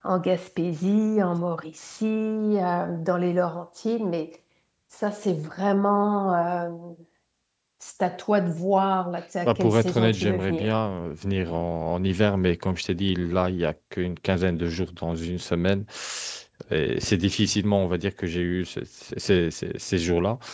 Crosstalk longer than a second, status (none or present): present